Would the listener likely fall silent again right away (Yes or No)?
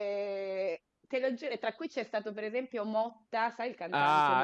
No